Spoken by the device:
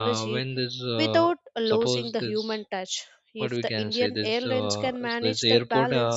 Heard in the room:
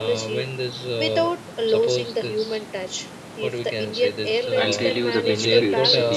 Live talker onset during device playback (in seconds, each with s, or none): 4.5 s